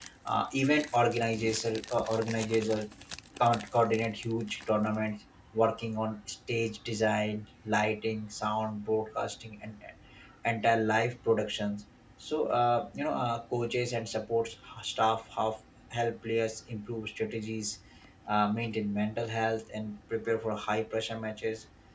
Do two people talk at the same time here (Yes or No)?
No